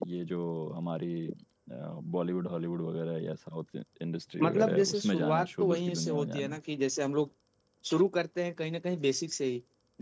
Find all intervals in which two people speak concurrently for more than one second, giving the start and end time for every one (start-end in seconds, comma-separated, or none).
4.4-6.6